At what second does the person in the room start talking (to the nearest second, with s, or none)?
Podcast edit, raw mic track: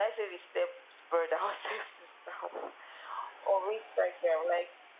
none